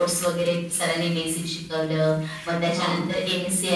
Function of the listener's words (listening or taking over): listening